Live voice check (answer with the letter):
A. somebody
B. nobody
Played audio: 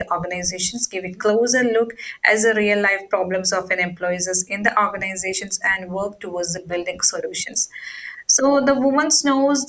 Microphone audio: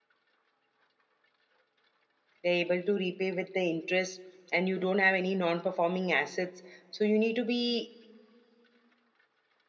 A